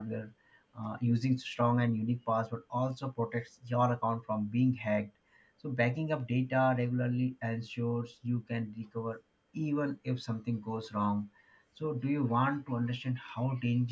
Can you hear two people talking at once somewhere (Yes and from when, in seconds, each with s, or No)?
No